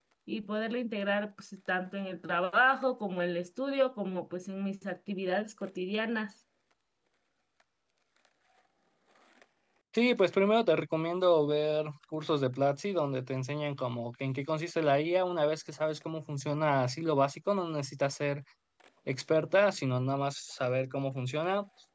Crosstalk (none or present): none